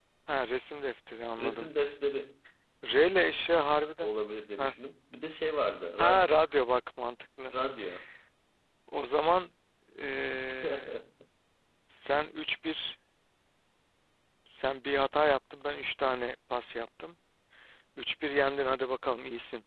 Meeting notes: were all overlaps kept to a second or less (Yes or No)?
Yes